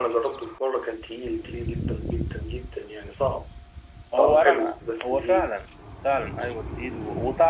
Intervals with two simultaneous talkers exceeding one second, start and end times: 4.2-5.5

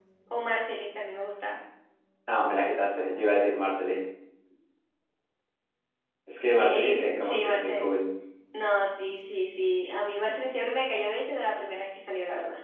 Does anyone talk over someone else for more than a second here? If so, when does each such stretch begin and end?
6.5-7.9

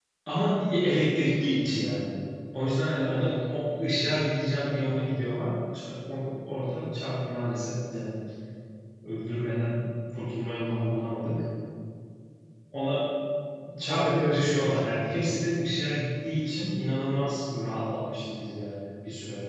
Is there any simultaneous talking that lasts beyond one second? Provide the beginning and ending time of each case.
13.9-15.3

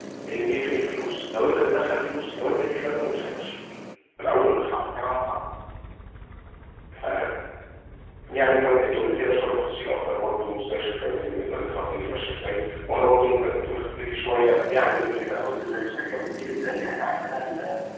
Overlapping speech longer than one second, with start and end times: 14.4-15.7

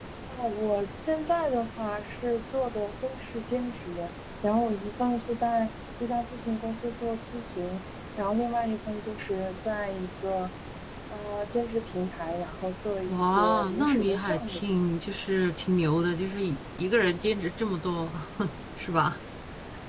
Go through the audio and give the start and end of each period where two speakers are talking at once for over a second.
13.1-14.6

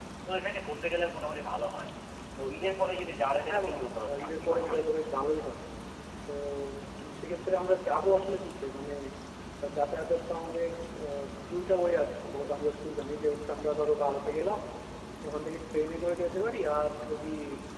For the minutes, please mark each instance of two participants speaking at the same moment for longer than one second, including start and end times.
3.3-4.8

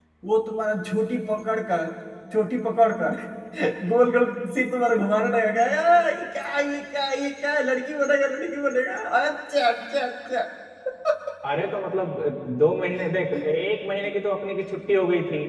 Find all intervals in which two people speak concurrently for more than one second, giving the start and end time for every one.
none

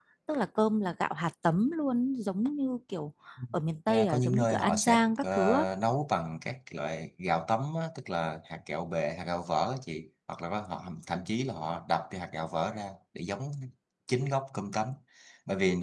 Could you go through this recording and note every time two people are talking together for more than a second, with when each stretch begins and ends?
3.9-5.6

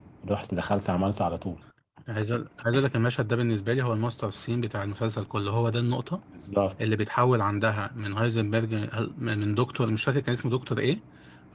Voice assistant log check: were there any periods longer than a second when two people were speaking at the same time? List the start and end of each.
none

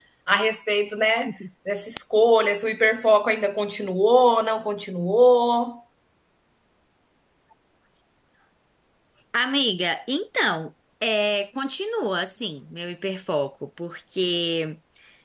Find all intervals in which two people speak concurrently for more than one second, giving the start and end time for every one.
none

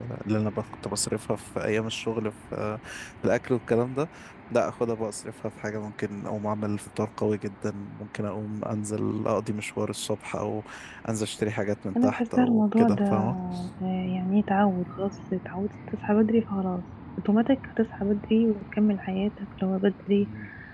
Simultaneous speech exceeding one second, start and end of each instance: 12.0-13.3

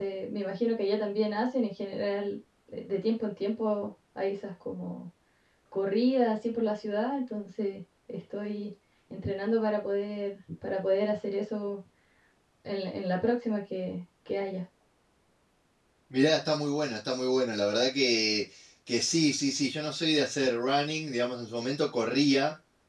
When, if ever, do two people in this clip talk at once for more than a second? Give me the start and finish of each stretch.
none

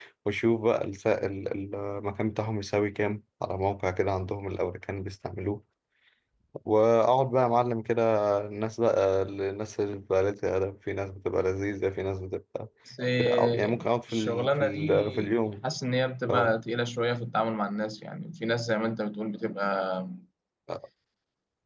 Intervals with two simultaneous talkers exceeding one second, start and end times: 13.2-15.6

